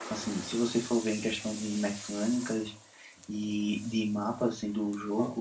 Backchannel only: Yes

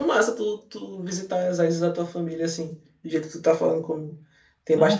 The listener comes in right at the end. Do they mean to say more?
No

